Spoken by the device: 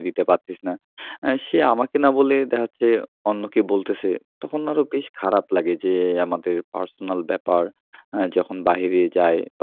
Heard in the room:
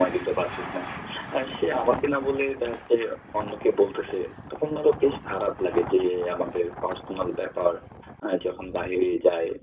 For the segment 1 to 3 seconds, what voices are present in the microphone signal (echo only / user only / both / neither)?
echo only